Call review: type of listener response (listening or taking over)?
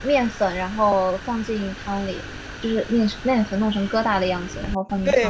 taking over